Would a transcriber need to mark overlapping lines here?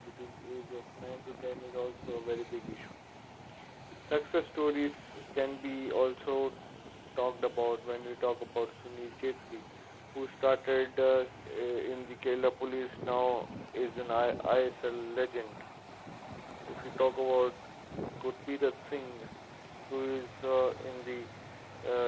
No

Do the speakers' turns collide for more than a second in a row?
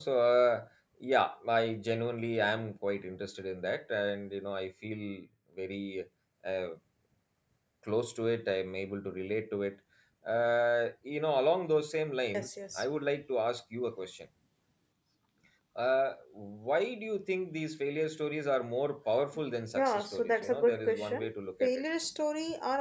Yes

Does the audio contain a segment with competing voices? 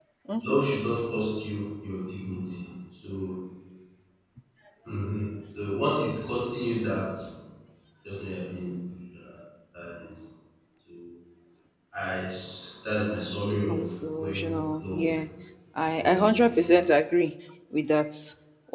Yes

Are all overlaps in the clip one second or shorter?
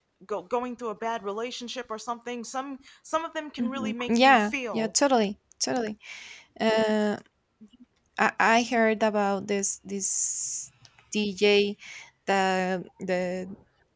No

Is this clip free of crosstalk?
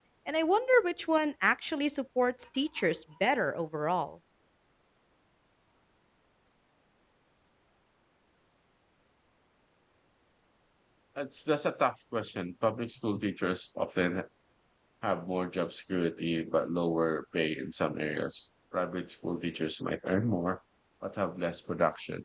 Yes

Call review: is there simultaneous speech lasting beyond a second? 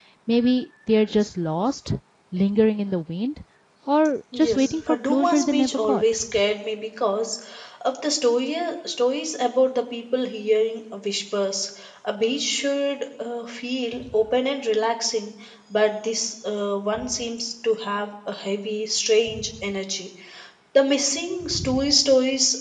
Yes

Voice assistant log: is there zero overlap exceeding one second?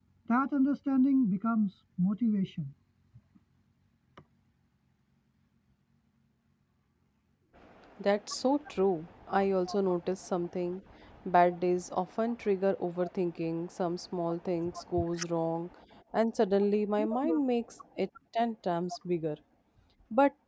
Yes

